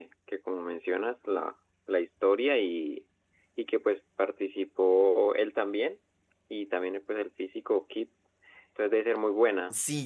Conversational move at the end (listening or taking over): taking over